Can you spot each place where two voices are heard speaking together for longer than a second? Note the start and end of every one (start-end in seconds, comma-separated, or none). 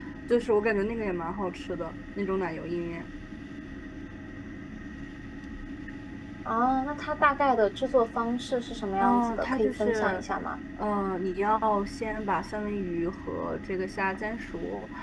9.0-10.2